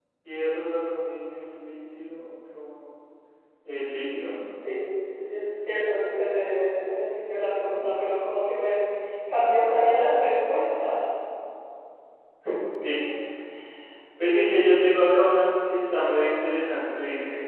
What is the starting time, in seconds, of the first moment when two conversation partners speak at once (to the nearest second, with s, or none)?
none